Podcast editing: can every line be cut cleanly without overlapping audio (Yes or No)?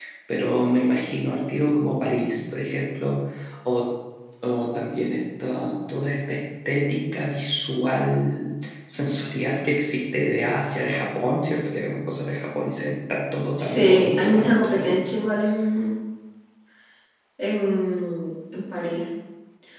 No